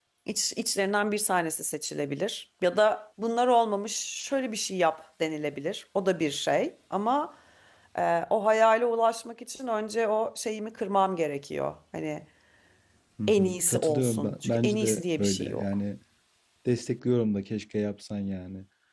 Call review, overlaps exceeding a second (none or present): present